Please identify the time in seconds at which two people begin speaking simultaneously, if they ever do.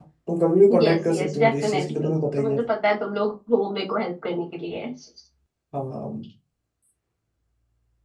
1 s

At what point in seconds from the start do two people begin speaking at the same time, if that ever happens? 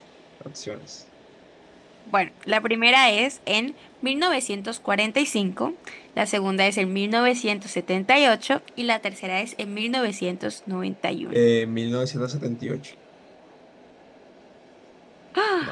none

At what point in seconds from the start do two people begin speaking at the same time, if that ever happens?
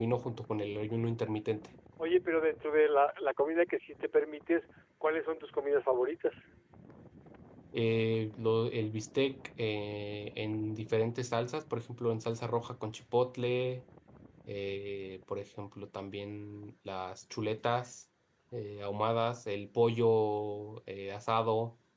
none

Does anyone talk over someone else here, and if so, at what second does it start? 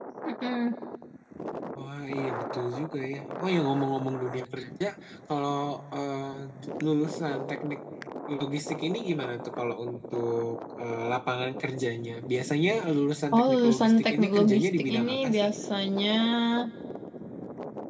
13 s

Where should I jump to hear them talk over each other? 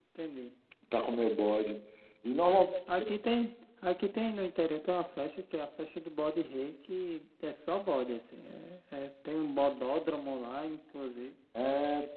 none

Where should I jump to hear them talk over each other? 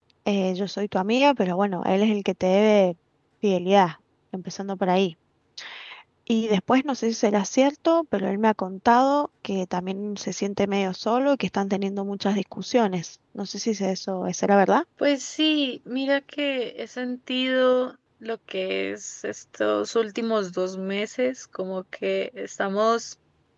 none

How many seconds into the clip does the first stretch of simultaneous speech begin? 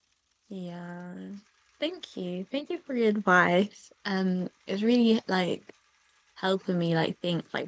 none

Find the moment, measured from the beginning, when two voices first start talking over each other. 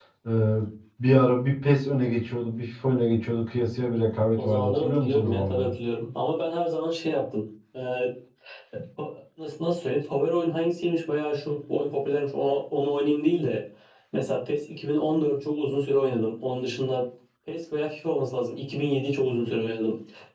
4 s

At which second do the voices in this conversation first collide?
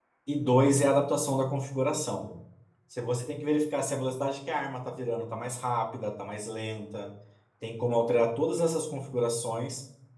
none

